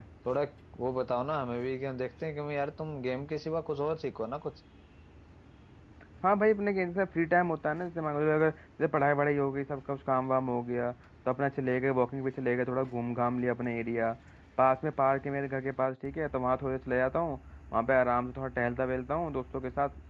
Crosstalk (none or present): none